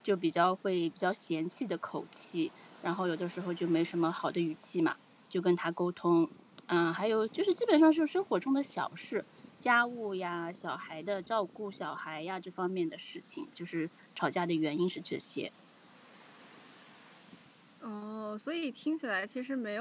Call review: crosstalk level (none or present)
none